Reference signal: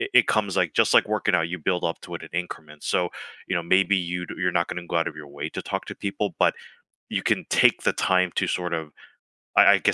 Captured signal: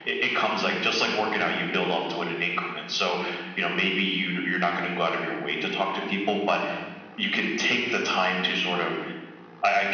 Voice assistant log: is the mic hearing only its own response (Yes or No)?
Yes